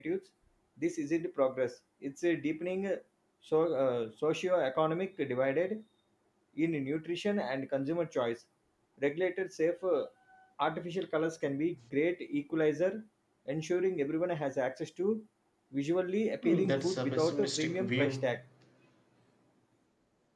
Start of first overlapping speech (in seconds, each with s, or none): 16.4 s